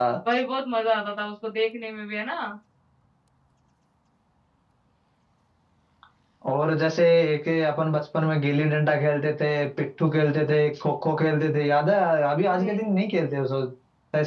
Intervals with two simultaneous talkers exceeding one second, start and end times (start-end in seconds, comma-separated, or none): none